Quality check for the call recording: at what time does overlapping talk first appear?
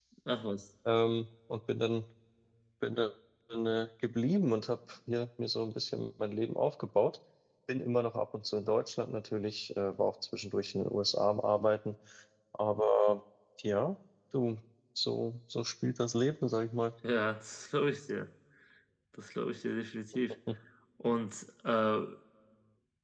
none

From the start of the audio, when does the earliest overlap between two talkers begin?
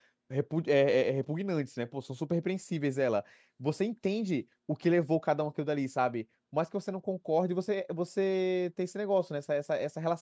none

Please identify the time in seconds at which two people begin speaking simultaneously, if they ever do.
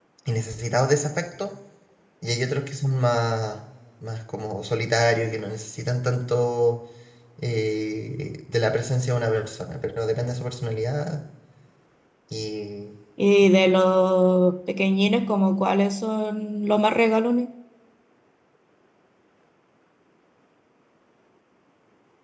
none

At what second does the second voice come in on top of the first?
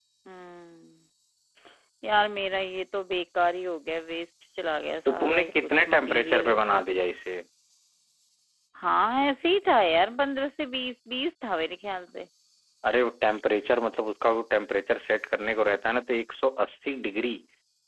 5.0 s

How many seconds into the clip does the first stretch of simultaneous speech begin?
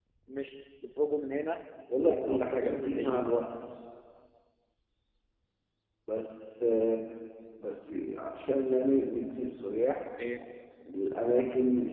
1.9 s

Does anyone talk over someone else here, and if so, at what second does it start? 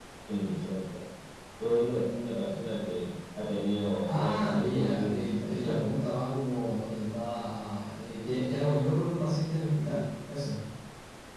3.8 s

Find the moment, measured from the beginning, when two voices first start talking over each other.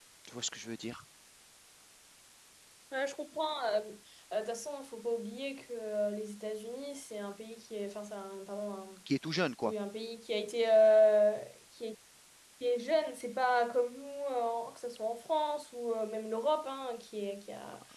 none

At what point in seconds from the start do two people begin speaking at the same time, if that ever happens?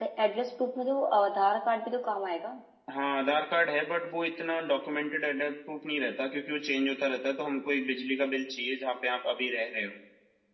none

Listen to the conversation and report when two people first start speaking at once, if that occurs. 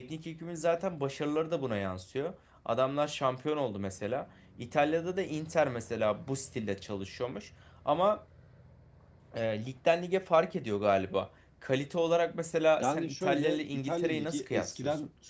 12.8 s

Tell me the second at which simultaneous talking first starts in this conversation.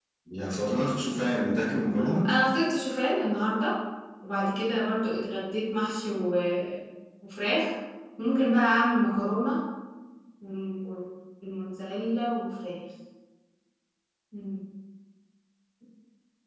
none

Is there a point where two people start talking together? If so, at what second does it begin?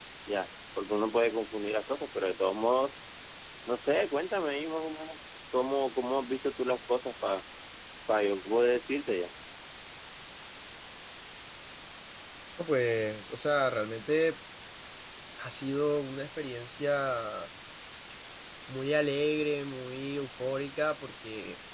none

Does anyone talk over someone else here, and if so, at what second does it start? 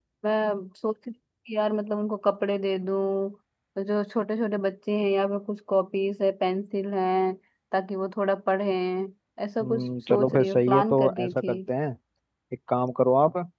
9.6 s

